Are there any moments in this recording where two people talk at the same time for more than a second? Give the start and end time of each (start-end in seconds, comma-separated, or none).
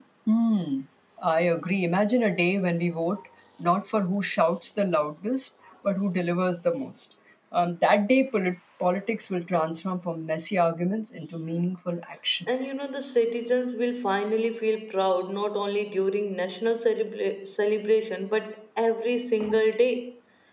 none